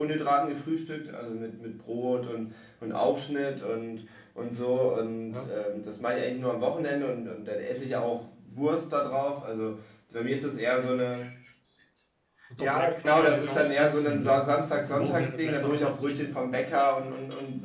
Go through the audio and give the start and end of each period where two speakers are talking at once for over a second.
12.6-14.4, 14.9-16.2

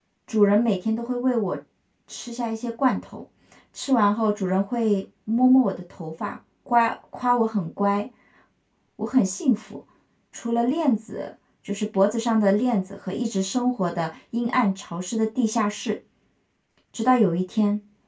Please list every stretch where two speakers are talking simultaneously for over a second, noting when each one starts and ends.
none

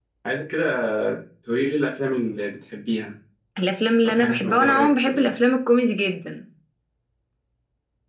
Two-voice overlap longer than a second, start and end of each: 4.0-5.3

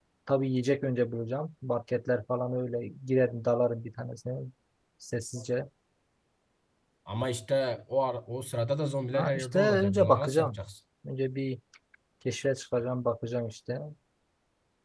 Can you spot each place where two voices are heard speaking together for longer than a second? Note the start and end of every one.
9.1-10.6

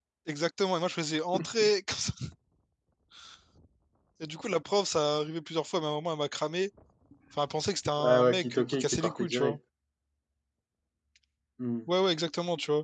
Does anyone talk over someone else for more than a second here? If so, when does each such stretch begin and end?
8.0-9.6

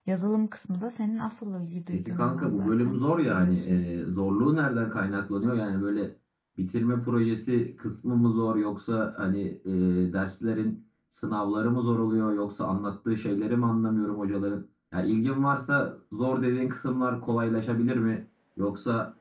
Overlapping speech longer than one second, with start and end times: 2.0-3.9

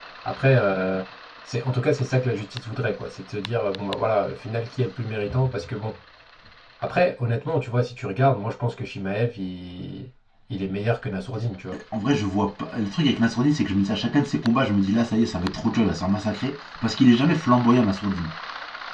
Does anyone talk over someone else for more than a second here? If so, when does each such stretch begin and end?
none

